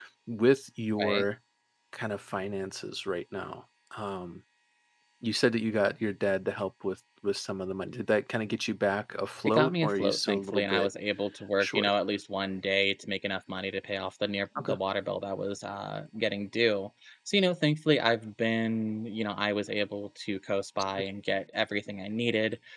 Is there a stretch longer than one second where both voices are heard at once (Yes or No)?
Yes